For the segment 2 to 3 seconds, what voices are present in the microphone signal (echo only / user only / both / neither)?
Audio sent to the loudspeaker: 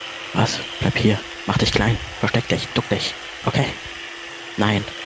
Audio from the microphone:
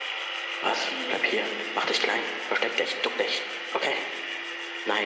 echo only